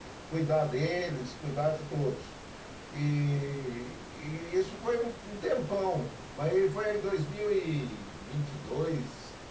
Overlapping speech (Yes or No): No